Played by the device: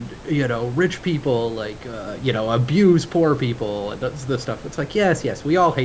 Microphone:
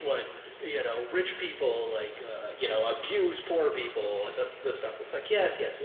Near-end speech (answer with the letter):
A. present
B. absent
B